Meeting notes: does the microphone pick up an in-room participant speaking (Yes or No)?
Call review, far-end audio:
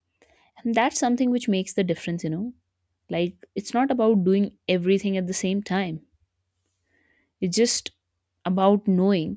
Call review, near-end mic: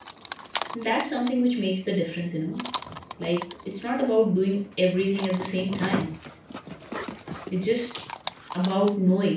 No